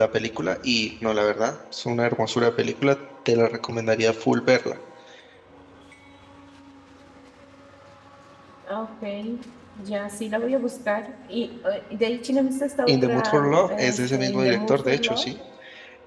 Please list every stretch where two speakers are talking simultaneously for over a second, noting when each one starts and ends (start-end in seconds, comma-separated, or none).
12.9-15.3